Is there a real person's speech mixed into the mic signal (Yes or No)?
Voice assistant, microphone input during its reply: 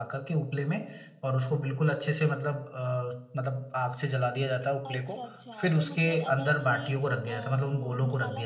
Yes